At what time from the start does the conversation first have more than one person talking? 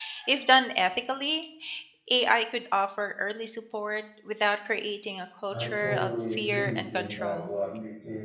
5.5 s

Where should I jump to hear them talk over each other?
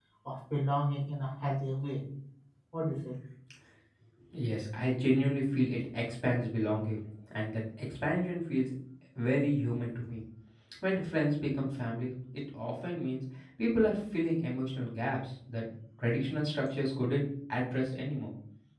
none

